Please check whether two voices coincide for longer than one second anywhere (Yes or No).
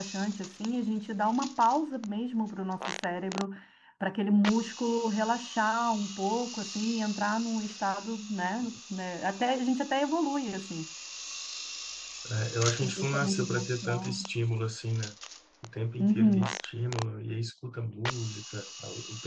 Yes